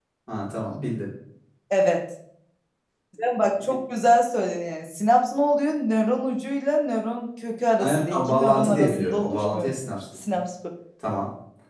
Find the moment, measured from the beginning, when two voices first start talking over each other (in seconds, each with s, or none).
7.8 s